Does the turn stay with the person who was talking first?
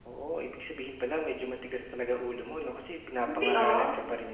Yes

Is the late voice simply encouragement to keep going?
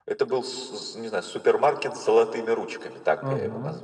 No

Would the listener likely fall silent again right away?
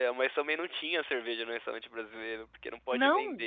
Yes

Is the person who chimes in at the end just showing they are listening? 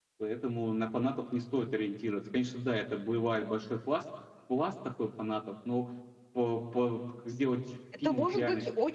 No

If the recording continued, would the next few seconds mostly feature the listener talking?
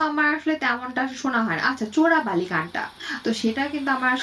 No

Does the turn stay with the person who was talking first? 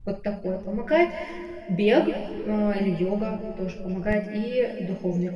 No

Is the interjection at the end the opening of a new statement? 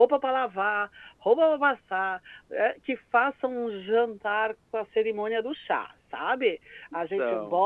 No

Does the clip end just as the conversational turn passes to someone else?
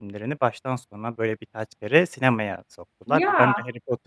No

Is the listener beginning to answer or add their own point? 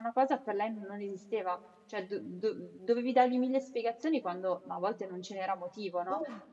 No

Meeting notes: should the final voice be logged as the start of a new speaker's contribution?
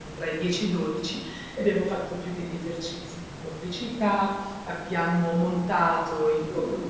No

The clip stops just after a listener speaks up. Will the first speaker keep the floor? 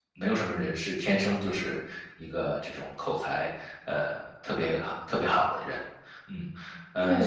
No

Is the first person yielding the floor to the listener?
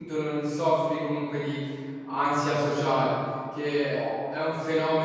No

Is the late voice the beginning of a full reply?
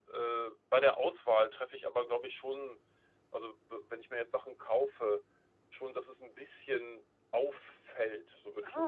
Yes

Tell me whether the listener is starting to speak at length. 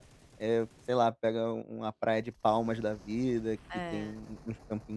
No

